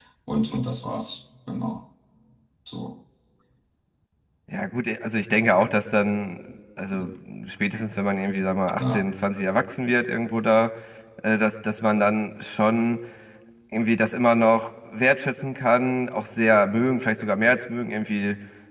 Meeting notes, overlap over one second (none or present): none